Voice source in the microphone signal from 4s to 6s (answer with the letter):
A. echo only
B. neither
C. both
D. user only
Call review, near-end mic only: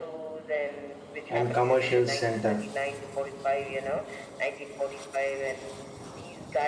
A